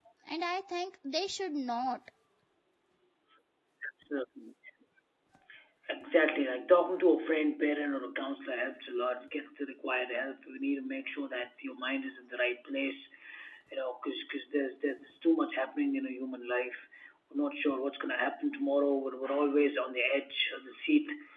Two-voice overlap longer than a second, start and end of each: none

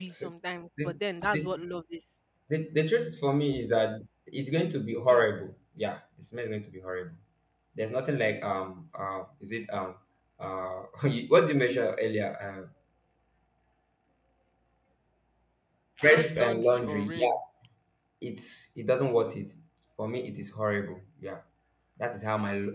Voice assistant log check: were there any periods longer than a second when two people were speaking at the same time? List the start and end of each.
16.0-17.3

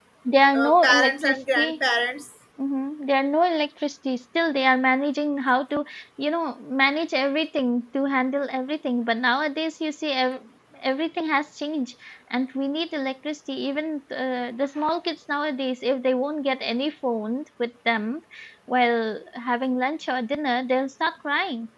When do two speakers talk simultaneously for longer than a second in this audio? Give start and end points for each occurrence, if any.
0.6-1.8

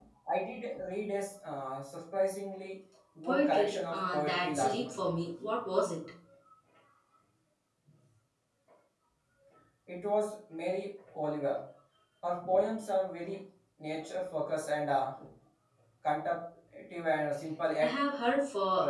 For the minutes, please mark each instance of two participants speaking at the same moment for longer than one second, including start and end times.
3.2-4.9

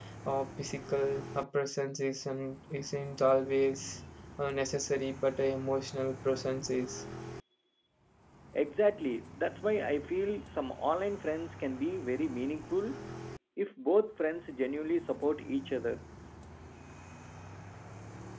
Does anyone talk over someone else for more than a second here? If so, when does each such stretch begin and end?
none

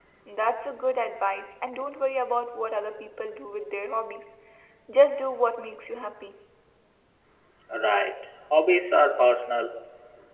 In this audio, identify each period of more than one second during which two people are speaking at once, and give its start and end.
none

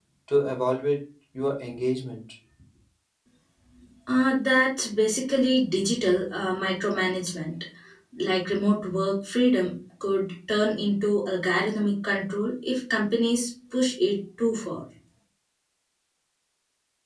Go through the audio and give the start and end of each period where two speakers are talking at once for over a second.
none

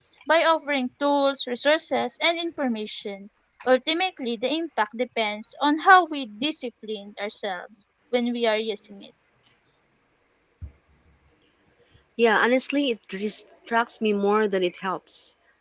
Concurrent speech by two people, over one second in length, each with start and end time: none

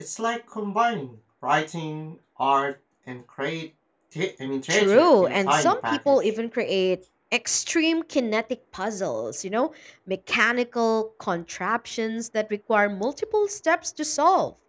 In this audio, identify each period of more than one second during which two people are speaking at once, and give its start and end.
4.7-6.3

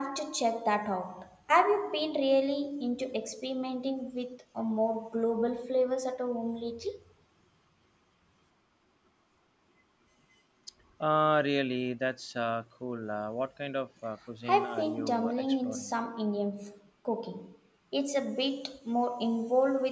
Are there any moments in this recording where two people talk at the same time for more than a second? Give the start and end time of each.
14.5-15.9

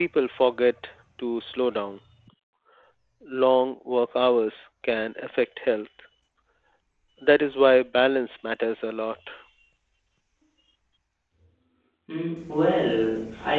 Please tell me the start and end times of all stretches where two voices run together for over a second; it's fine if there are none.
none

